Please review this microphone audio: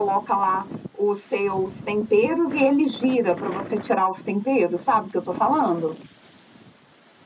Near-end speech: none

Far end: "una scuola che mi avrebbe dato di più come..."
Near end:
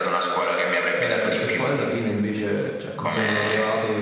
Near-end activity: present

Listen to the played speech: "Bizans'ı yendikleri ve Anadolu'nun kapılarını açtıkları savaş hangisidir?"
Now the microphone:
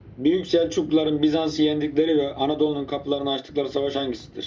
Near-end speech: none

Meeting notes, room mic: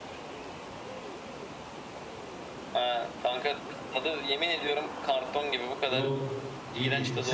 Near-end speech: present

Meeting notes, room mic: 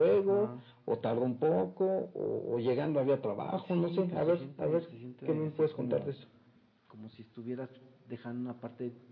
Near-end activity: present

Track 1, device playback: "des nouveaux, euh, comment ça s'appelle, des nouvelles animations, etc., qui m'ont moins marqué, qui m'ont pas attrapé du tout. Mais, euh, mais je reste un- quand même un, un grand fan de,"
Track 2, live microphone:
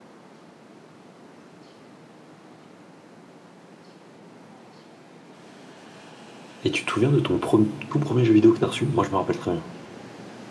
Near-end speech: present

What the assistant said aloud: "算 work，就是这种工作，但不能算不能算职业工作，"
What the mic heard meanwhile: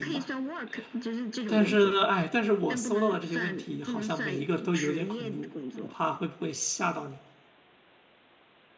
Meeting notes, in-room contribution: present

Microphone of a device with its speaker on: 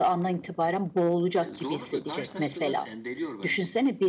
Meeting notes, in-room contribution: present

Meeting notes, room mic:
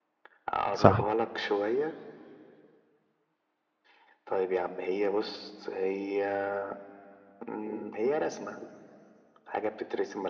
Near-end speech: present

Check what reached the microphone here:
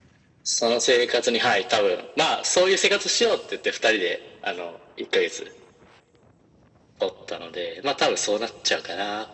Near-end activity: none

